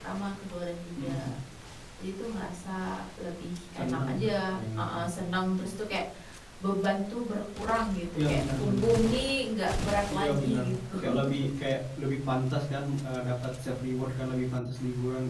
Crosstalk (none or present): present